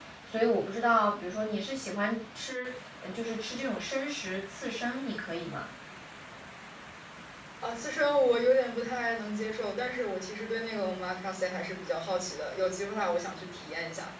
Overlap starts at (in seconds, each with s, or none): none